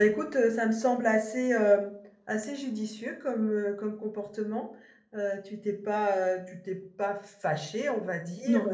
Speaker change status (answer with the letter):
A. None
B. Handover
A